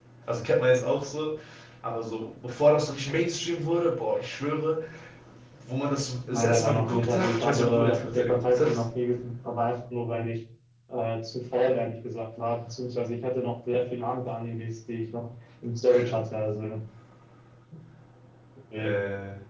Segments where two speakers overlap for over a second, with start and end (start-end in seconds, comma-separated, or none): 6.3-8.8